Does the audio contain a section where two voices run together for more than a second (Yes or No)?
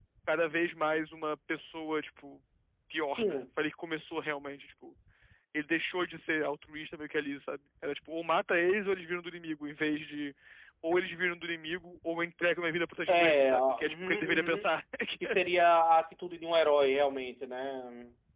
Yes